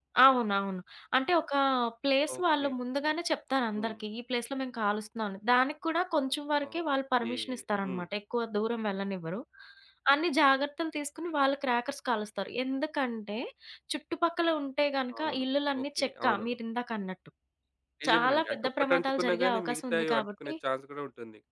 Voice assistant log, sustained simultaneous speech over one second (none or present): present